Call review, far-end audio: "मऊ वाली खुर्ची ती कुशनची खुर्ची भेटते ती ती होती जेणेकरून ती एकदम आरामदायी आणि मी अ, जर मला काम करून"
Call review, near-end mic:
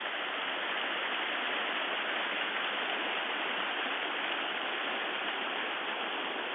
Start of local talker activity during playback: none

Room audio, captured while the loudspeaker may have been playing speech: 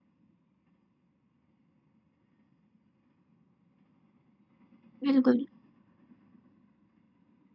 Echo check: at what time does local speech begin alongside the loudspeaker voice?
5 s

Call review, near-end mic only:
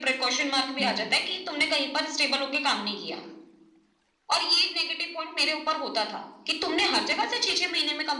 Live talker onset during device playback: 1 s

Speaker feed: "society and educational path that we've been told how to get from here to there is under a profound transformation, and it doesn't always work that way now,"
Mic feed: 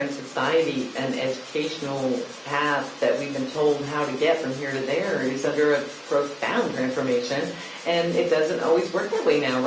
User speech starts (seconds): none

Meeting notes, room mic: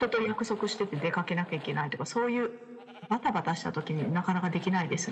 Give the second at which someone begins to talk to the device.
none

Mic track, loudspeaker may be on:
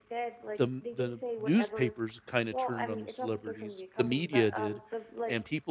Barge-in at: 1 s

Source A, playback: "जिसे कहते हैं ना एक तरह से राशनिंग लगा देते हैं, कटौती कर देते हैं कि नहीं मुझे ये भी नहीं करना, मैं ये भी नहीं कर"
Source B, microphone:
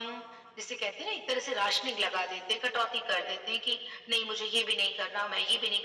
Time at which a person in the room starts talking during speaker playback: none

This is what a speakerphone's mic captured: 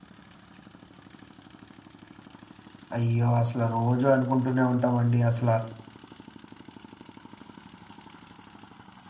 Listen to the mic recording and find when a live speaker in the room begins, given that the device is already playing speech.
3 s

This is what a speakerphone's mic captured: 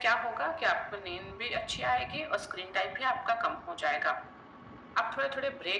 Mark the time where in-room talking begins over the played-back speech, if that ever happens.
none

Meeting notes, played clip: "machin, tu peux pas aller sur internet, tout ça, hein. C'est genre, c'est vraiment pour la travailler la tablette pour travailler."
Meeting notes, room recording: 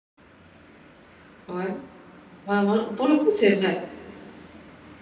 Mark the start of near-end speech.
1 s

